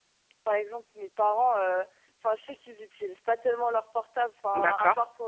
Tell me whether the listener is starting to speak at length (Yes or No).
No